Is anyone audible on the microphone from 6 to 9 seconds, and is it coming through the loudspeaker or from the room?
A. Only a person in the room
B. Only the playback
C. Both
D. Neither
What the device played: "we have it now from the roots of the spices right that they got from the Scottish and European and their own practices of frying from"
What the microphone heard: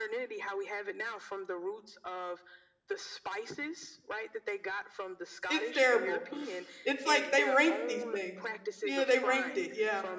C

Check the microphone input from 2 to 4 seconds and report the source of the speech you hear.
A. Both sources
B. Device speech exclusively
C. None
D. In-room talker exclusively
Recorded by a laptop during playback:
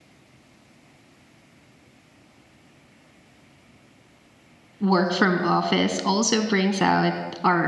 C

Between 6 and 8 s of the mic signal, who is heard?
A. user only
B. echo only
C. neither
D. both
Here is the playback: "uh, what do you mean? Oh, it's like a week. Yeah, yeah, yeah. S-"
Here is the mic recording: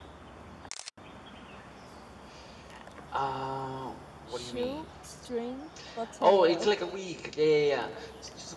D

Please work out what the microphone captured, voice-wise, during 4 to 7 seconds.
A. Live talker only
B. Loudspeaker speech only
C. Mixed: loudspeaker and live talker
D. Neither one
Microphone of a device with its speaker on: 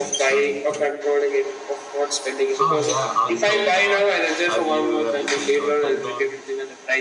C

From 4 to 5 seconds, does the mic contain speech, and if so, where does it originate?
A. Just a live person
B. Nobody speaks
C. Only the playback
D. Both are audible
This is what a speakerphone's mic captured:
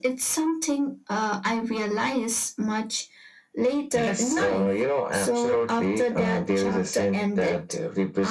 C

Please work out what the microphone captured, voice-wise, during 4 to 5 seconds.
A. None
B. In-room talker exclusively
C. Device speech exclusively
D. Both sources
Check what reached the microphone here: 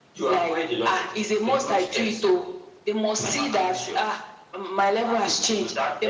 C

